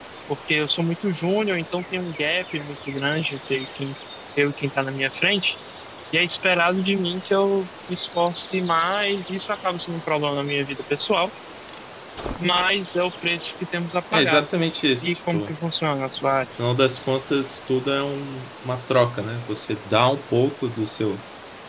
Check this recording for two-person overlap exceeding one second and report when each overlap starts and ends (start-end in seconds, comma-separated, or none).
none